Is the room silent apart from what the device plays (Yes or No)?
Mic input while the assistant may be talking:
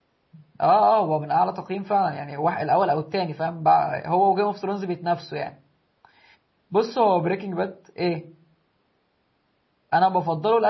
No